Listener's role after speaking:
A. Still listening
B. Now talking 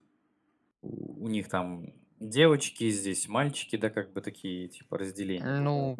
B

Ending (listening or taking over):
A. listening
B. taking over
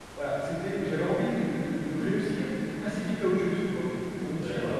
A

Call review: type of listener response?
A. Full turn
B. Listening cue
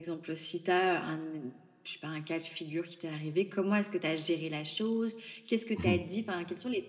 B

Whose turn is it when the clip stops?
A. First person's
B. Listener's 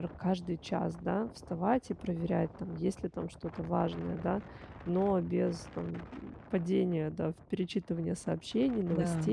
A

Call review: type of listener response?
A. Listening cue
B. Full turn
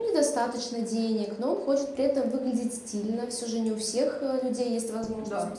A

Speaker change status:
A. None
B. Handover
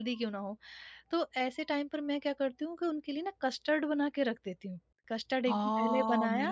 B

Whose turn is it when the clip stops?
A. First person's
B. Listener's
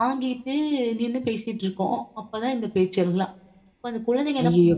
B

